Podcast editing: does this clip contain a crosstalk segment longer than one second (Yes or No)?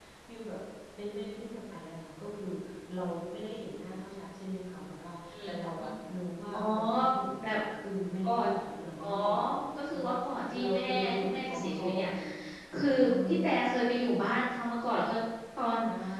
Yes